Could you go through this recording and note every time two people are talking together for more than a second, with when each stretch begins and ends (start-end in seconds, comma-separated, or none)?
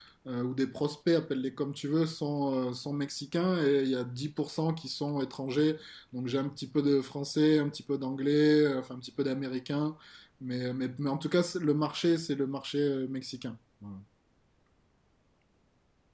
none